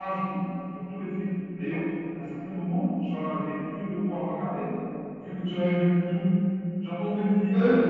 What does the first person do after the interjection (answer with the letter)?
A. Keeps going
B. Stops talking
A